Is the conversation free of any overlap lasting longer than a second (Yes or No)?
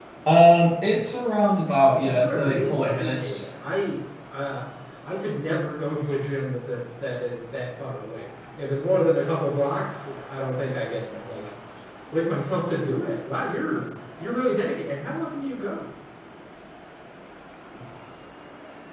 No